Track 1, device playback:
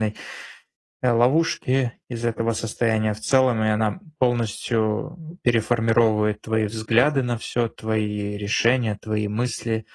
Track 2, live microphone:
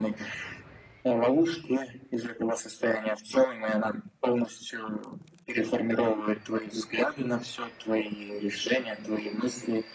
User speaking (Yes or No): No